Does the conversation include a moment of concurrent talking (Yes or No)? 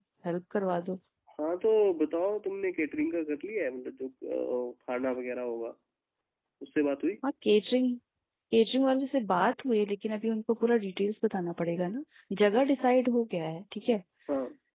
No